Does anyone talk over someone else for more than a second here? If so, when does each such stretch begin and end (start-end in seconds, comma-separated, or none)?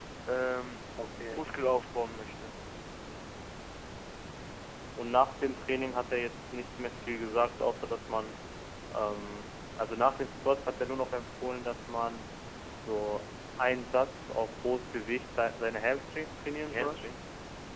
none